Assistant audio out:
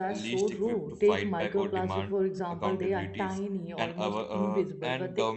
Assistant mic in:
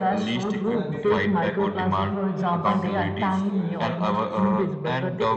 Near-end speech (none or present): present